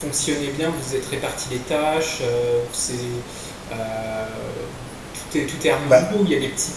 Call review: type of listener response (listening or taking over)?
listening